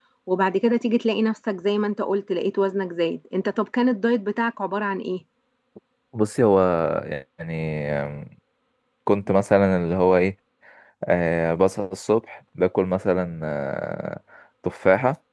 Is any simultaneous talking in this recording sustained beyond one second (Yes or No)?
No